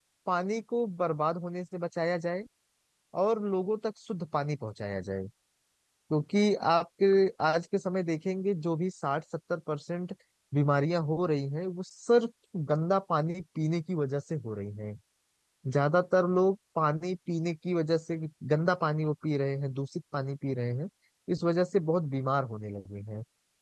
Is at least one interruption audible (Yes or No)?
No